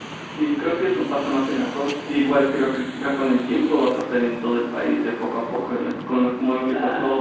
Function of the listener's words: listening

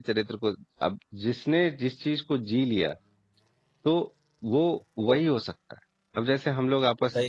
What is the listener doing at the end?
listening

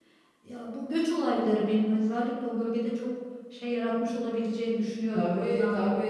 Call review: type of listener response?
taking over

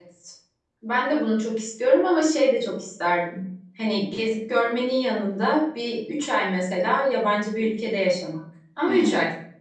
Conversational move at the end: taking over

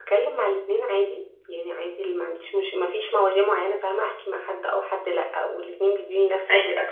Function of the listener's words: listening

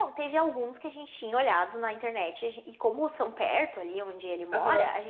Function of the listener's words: listening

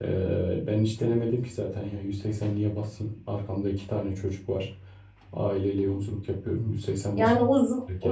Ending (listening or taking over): taking over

